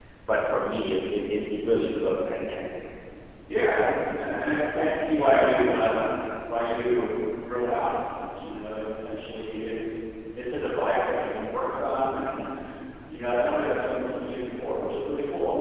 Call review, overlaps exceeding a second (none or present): none